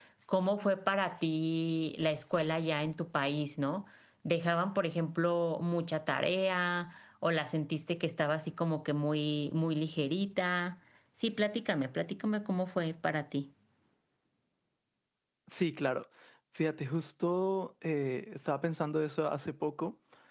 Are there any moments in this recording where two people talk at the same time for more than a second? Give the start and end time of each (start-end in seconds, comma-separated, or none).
none